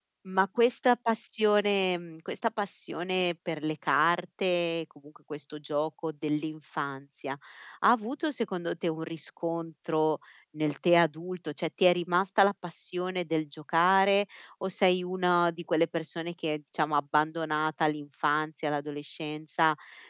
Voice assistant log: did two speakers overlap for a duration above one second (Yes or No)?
No